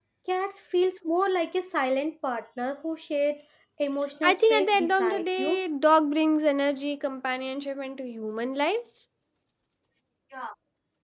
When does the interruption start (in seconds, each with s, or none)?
4.2 s